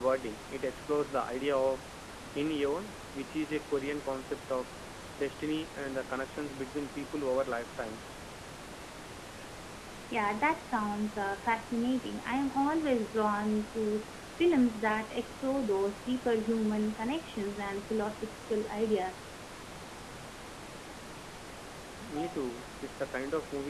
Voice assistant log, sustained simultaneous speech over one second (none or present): none